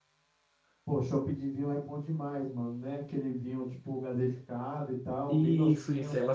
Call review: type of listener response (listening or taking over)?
taking over